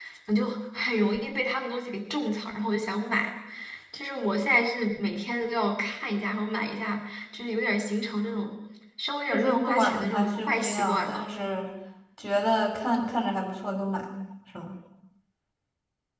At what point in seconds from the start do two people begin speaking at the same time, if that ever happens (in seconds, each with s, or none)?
9.3 s